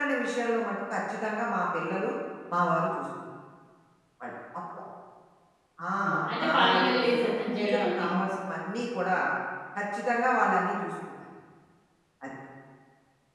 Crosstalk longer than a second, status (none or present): present